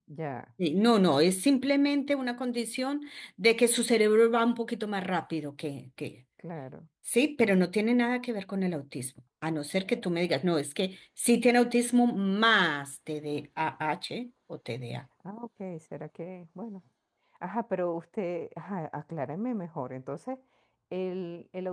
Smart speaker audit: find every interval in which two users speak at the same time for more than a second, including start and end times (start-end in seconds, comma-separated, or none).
none